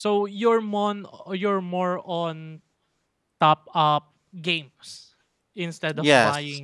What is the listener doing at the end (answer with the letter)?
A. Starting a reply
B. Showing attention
B